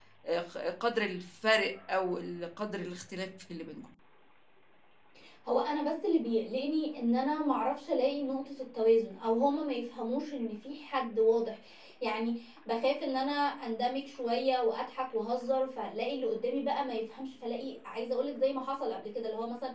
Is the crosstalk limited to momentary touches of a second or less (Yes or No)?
Yes